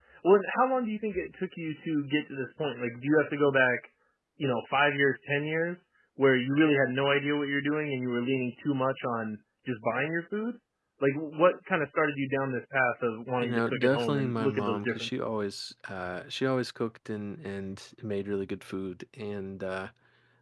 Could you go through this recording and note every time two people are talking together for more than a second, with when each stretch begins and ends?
13.4-15.3

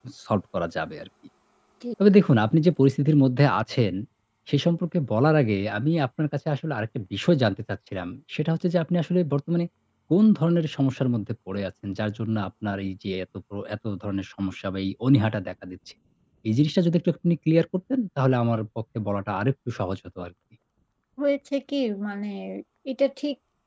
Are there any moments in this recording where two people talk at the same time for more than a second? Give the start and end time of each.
none

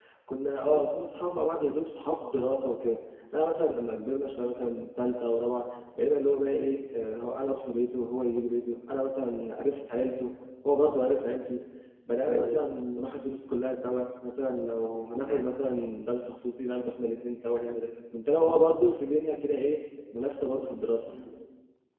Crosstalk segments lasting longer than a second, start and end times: none

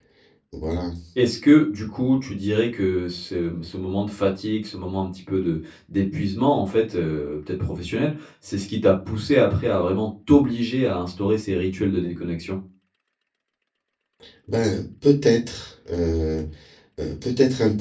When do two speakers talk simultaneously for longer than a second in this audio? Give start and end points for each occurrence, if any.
none

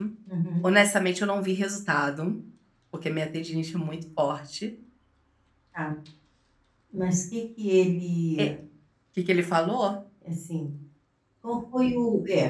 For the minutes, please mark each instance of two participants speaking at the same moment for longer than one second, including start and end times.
none

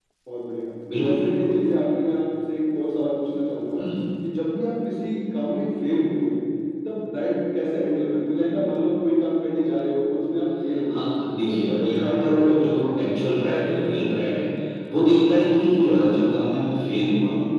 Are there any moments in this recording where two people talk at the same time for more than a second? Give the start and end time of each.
11.5-13.5

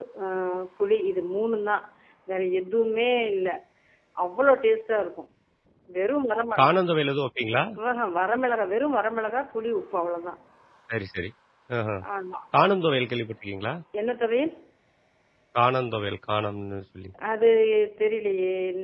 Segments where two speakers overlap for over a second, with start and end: none

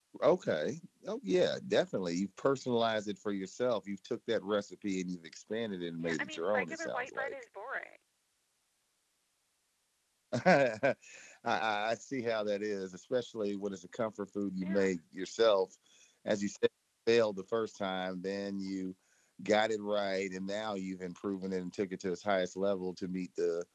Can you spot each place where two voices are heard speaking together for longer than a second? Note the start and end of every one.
6.0-7.3

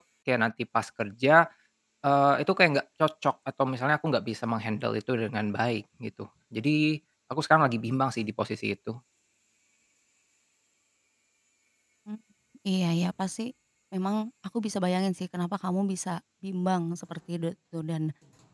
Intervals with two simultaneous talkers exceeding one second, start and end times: none

